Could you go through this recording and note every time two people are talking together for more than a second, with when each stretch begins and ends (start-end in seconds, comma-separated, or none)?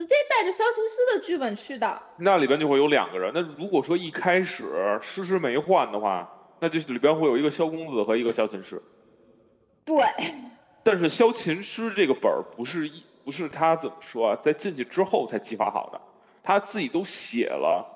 none